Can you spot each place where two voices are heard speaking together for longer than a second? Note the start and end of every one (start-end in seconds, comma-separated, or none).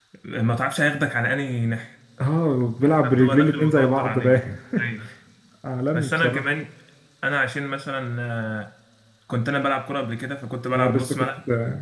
3.1-4.4